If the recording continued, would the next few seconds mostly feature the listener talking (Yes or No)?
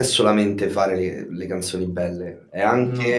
No